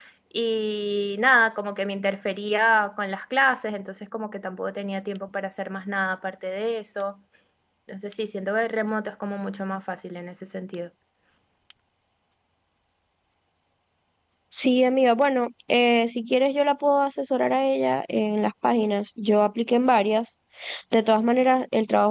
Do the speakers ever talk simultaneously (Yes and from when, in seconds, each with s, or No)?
No